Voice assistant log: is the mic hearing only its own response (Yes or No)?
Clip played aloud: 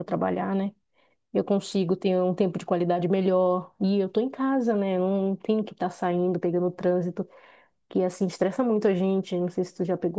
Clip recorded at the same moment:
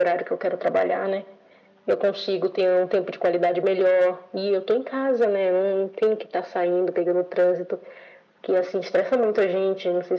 Yes